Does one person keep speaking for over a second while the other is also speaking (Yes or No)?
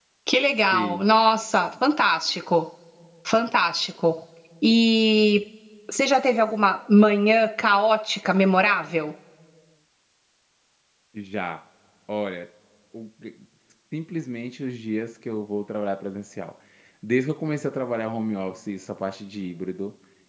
No